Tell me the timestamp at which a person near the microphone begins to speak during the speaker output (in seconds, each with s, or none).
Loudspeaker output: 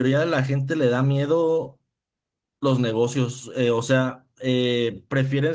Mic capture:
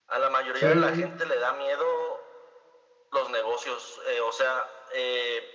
0.5 s